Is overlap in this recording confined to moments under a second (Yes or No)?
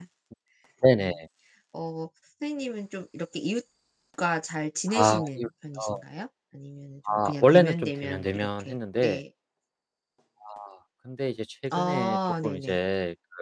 No